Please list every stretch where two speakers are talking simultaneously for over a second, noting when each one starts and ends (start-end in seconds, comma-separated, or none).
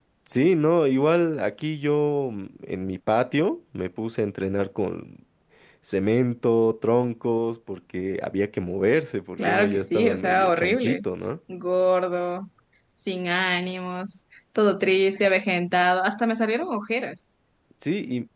9.4-11.0